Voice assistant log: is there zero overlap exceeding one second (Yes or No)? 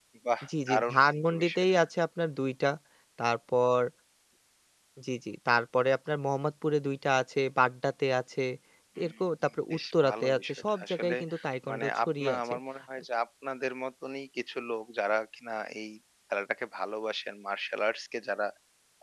No